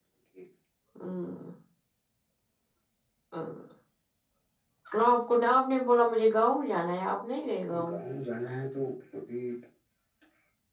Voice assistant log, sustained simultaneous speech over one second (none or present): none